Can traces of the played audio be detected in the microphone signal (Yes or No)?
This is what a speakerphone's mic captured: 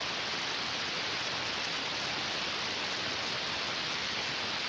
No